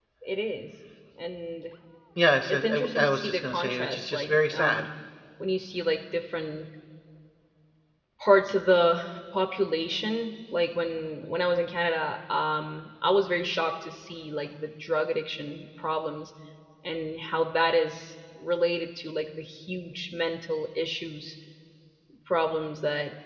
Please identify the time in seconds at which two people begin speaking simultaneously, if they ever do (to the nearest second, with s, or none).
2 s